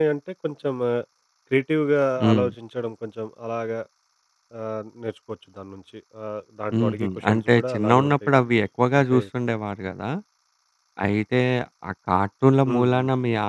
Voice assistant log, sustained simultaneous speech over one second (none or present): present